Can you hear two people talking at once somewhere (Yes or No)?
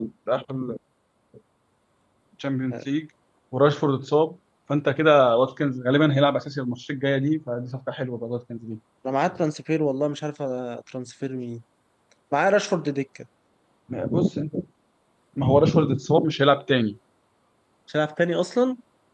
No